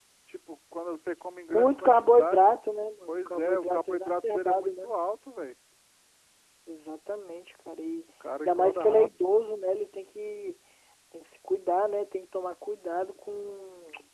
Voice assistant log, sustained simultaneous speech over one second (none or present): present